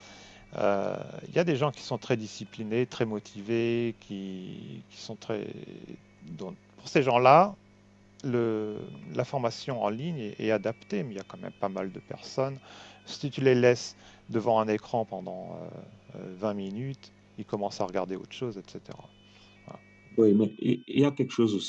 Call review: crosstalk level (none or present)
none